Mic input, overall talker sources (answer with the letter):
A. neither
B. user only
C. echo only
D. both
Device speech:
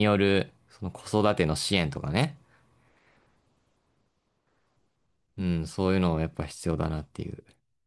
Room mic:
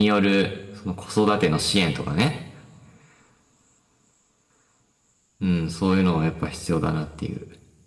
C